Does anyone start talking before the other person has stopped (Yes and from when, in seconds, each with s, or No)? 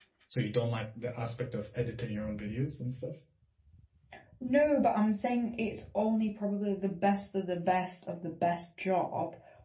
No